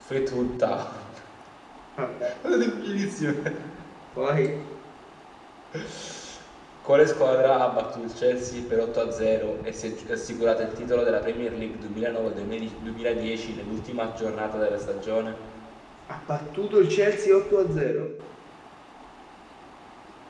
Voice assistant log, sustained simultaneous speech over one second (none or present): none